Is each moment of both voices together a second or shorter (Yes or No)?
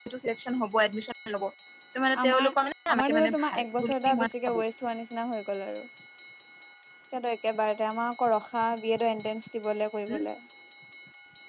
No